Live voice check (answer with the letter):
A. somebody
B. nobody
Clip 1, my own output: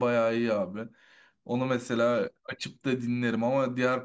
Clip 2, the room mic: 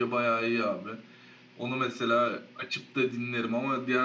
B